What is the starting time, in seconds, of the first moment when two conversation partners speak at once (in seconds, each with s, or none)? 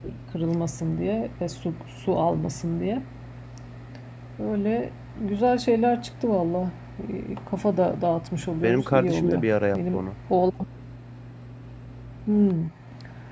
8.6 s